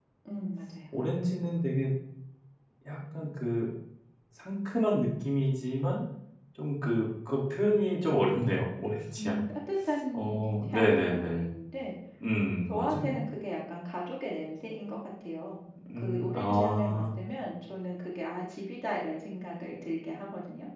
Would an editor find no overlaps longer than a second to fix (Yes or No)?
No